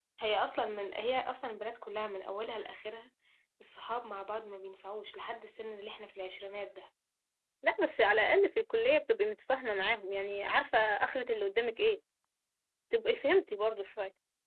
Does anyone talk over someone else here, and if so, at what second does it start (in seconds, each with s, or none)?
none